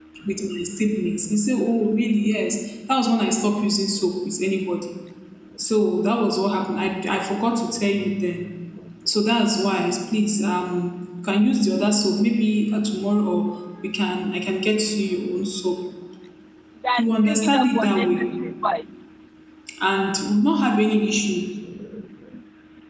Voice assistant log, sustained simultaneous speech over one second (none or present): present